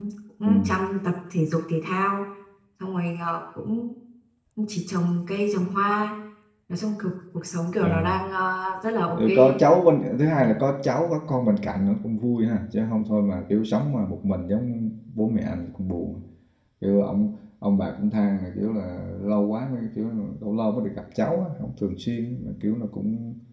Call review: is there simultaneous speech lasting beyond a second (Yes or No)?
No